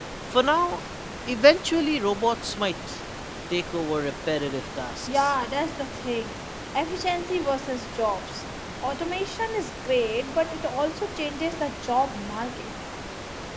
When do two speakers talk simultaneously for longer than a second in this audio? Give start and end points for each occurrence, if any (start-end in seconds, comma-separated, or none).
none